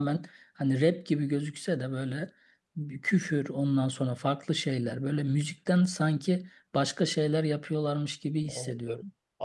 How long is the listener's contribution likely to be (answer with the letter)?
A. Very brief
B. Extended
B